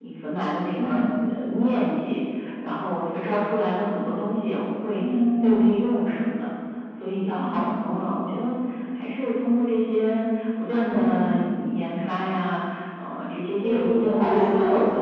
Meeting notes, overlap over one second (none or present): present